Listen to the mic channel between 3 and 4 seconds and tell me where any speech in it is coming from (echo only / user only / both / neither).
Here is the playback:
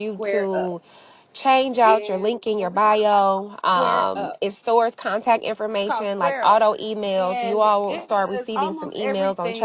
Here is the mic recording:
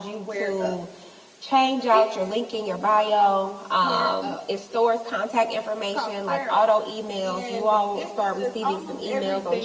echo only